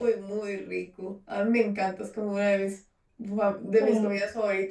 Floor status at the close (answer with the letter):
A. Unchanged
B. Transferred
A